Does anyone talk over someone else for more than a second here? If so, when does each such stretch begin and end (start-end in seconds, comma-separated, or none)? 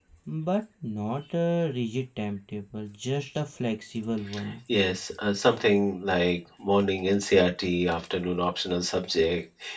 none